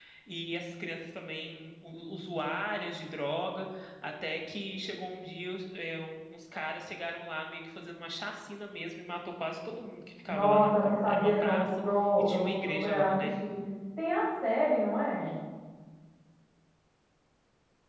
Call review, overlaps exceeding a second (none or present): present